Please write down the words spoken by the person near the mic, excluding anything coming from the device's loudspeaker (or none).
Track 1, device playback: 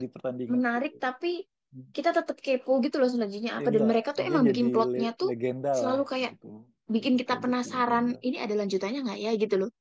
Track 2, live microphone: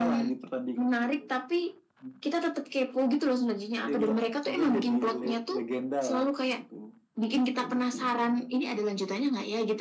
none